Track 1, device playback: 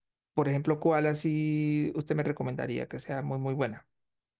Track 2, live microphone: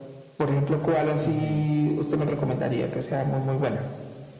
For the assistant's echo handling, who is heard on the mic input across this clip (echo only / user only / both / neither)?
both